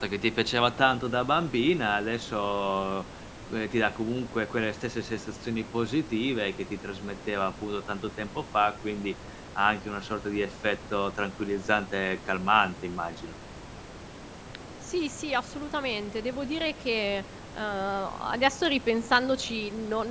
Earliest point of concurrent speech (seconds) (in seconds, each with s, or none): none